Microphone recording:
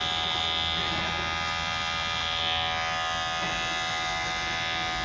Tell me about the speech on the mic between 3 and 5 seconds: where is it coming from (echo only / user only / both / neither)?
neither